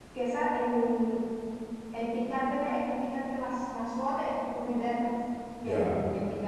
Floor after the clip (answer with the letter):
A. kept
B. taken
A